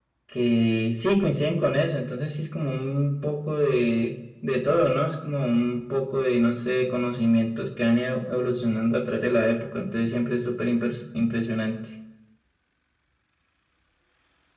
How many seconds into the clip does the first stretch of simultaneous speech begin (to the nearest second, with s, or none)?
none